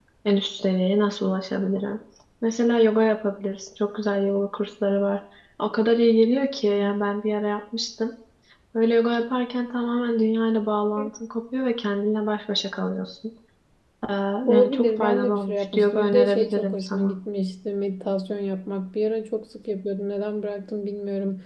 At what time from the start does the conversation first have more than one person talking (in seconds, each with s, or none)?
14.5 s